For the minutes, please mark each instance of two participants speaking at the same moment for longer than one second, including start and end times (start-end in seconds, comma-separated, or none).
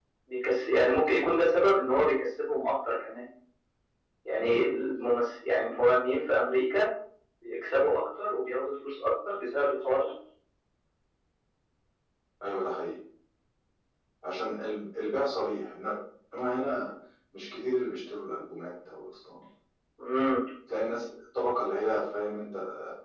none